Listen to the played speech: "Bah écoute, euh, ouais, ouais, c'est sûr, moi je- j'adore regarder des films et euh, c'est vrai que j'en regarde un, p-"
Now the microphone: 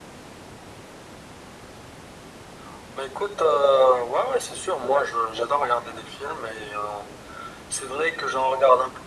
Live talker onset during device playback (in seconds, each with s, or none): none